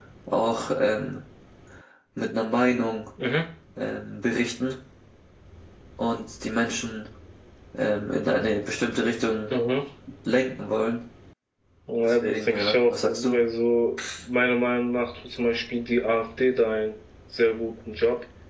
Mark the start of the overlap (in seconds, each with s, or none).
12.0 s